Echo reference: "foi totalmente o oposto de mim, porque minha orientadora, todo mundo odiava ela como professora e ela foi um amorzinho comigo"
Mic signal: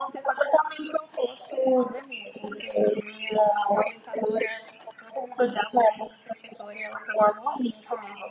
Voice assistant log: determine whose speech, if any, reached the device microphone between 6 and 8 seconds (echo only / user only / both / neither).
echo only